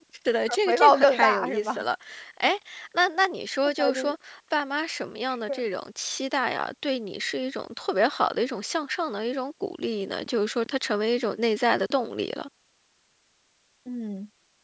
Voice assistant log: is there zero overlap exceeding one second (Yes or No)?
No